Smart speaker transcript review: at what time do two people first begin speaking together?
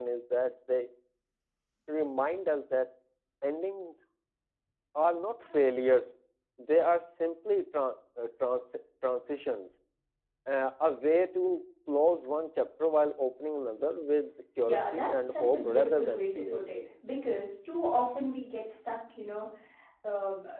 15 s

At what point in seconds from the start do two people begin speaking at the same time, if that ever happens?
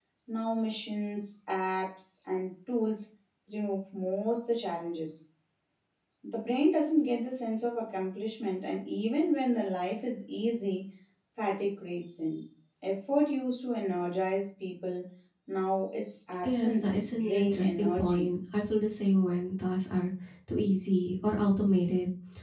16 s

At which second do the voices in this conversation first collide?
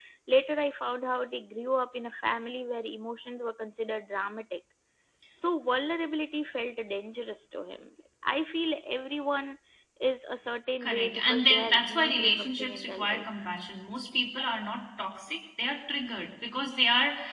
11 s

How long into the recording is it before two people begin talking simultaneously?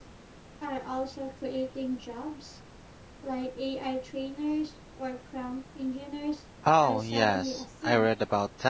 7 s

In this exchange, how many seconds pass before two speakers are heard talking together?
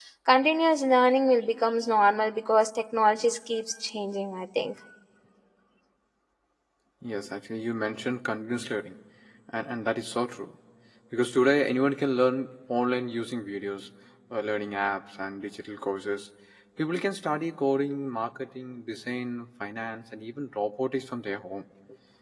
none

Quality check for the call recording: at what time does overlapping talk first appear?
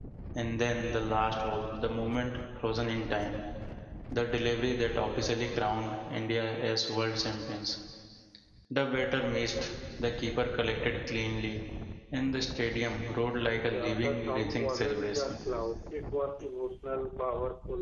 14 s

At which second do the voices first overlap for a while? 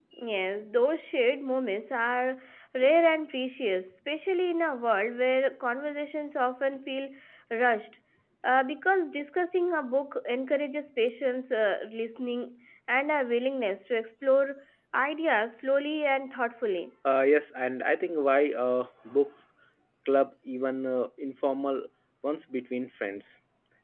none

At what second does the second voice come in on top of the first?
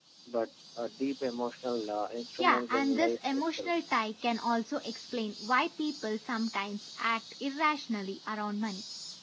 2 s

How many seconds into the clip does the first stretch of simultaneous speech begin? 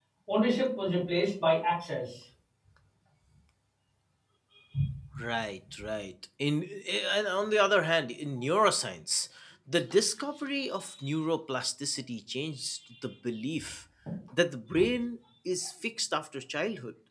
none

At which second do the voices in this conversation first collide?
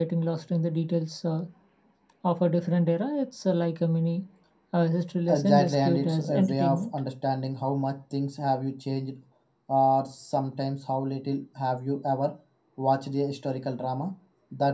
5 s

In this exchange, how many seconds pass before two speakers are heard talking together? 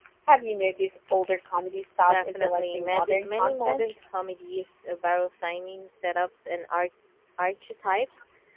2 s

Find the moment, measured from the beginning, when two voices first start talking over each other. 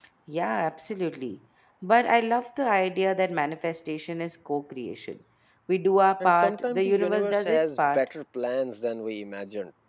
6 s

